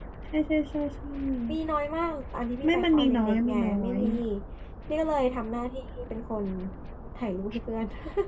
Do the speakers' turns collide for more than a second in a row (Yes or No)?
Yes